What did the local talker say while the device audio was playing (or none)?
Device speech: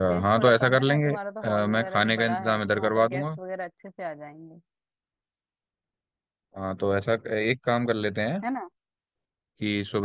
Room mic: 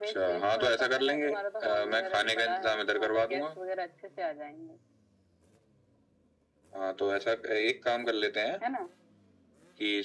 none